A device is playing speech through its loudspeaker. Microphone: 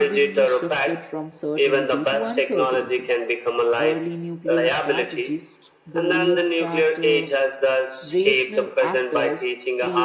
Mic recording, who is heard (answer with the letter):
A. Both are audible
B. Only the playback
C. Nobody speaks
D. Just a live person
A